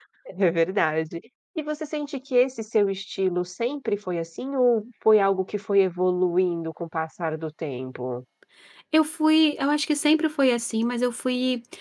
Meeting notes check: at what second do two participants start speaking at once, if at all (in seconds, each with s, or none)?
none